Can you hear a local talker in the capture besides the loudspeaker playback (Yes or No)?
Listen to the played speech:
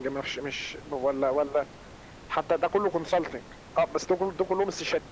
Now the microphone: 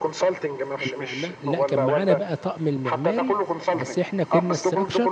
Yes